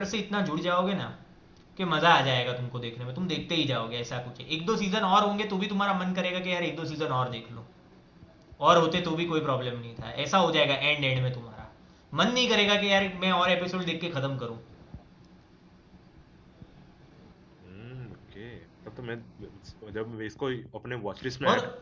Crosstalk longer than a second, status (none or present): none